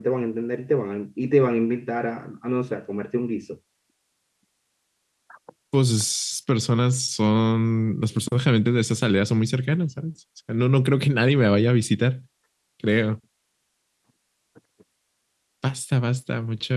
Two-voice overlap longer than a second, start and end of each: none

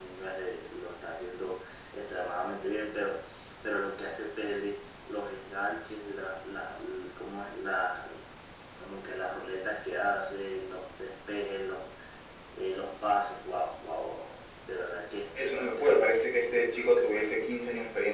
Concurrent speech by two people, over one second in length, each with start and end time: 15.4-17.4

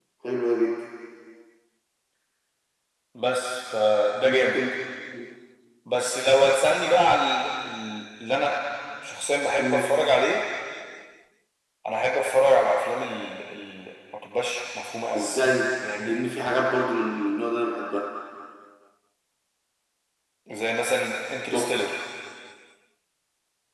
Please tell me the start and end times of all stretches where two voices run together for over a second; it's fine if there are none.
none

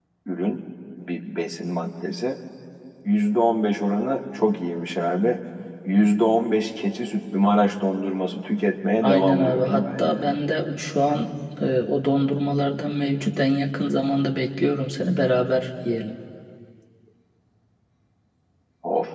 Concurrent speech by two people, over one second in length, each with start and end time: 9.0-10.3

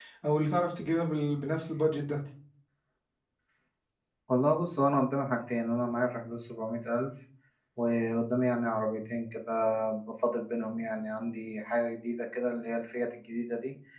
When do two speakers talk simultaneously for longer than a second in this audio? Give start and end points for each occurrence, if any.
none

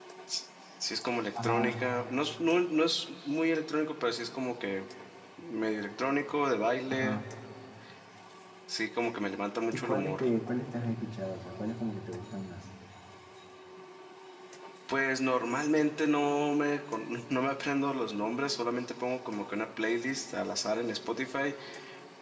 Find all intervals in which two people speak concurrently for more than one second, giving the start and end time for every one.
none

